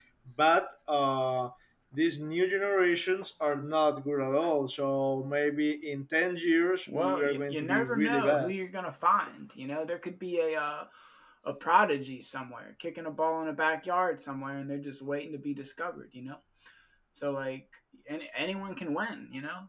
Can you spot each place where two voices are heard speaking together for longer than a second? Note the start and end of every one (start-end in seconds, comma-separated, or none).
6.9-8.5